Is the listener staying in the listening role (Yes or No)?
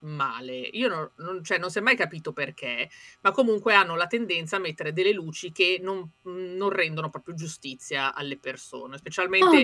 Yes